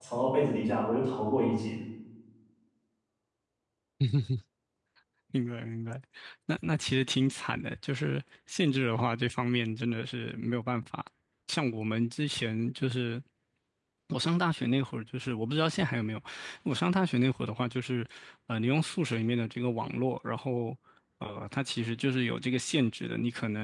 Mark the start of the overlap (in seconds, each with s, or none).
none